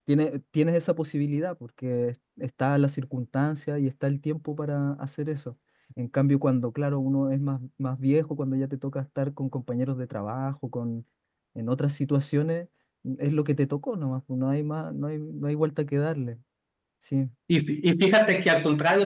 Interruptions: none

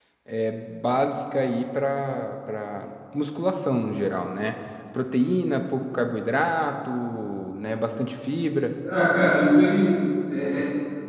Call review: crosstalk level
none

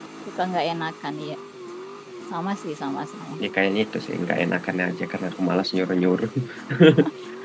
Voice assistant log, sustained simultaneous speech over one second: none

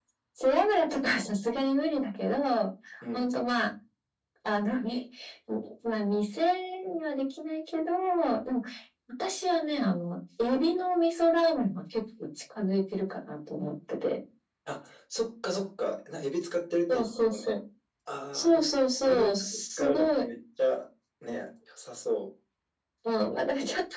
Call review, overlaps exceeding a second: present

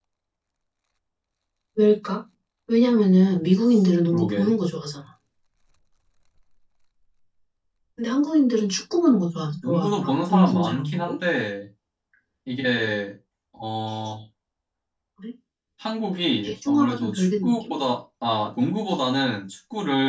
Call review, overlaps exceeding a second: present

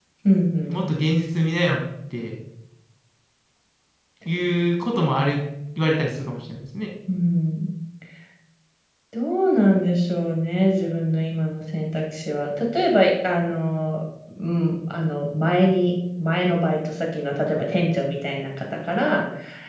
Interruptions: none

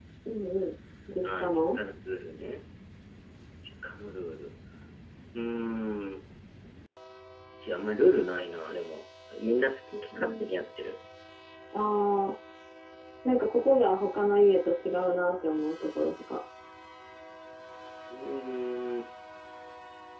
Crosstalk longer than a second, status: none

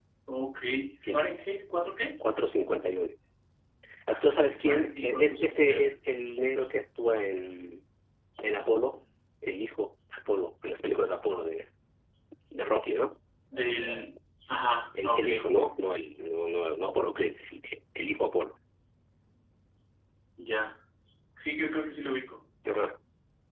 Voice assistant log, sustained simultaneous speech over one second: present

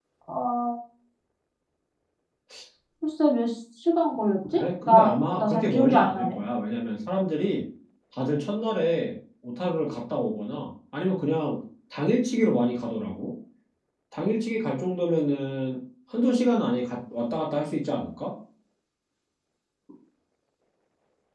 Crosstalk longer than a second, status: present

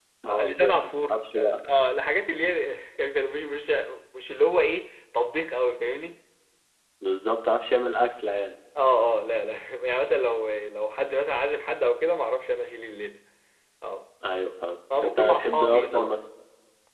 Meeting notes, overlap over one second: present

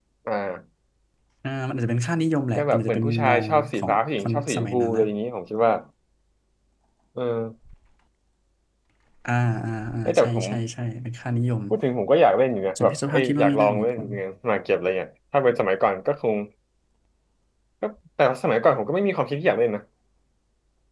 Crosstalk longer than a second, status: present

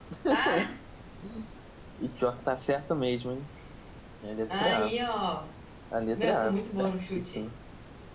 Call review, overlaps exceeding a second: present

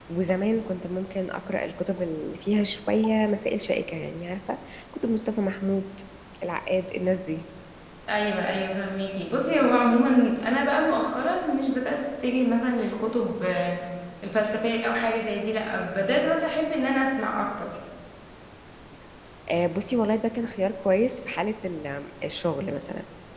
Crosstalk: none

